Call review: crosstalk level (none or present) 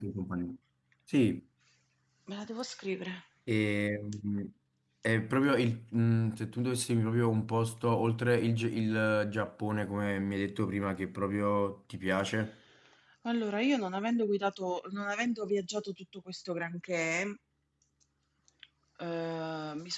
none